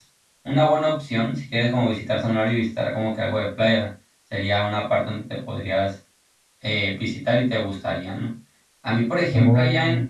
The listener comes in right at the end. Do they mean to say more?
No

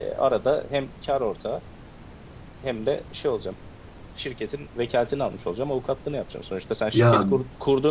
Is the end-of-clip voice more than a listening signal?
No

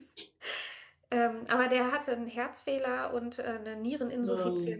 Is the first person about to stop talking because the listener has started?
No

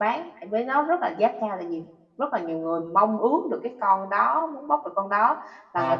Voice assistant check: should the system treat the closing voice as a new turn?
Yes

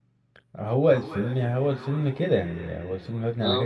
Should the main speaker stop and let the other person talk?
No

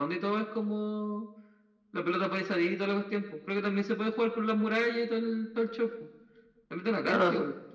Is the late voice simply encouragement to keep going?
No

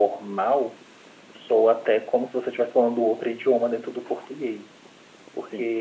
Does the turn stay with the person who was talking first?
Yes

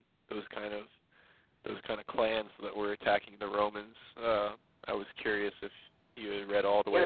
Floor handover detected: Yes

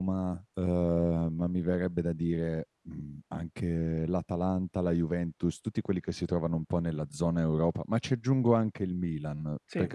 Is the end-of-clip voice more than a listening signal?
No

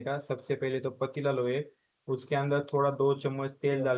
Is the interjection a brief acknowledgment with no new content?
Yes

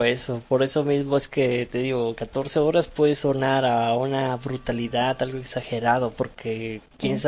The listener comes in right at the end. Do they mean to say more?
No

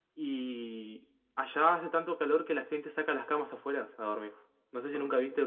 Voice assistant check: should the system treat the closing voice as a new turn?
No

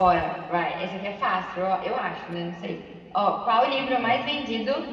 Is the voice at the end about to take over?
No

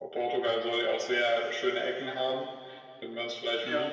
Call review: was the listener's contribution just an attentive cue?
Yes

